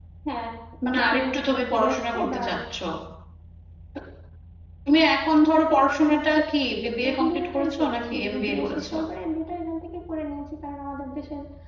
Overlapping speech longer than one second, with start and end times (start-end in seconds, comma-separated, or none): 1.0-2.4, 7.1-8.9